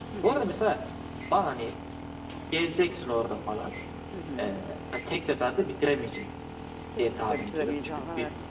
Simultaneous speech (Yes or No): Yes